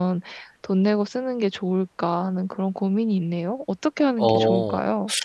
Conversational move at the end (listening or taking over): taking over